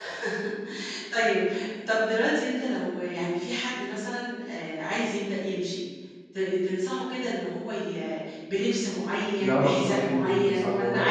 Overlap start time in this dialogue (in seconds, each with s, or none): 9.4 s